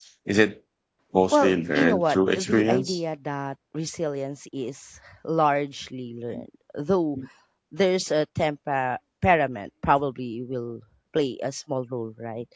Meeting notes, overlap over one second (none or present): present